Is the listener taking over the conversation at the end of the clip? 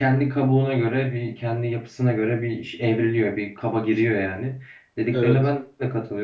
No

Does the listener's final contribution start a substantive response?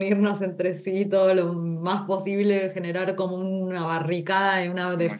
No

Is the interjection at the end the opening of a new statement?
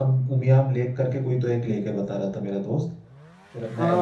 Yes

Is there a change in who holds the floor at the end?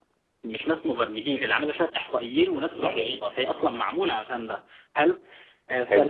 No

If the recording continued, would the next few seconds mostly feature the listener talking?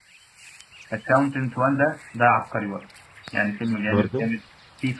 No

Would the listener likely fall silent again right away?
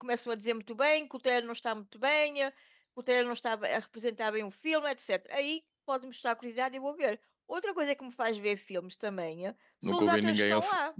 No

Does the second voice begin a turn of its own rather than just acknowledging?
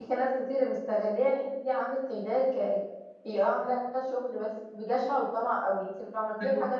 No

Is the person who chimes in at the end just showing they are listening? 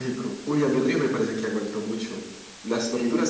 No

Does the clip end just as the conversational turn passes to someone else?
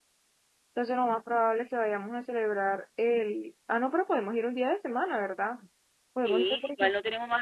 Yes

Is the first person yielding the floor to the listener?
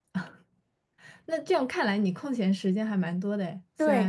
Yes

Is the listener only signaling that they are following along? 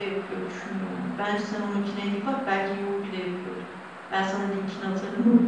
Yes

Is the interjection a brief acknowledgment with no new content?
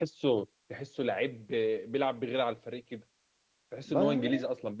Yes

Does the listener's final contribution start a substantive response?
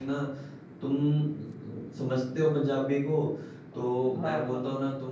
No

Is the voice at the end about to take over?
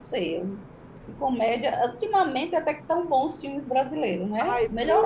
Yes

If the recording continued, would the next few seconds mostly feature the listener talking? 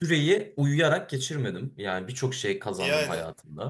No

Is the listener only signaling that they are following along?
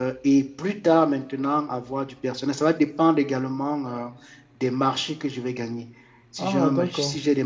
Yes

